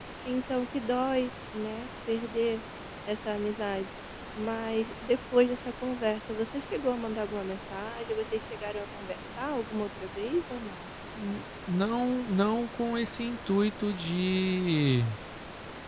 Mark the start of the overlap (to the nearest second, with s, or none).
none